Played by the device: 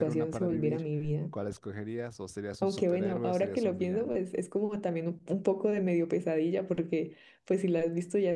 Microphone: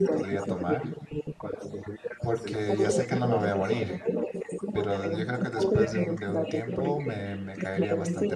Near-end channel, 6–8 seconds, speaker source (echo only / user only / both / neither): both